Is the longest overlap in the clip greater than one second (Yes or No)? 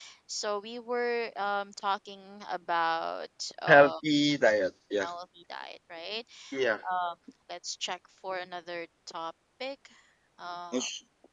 No